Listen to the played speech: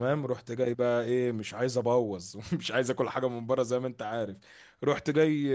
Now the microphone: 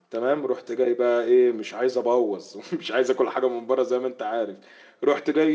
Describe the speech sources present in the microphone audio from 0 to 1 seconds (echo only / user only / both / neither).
echo only